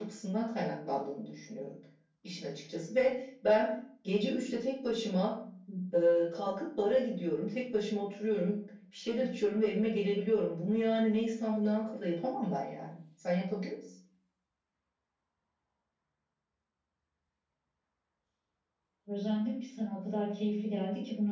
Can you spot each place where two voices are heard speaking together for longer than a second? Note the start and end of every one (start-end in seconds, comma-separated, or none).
none